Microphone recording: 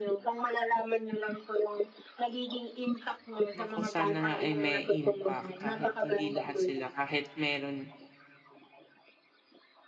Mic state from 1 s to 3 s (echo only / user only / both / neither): echo only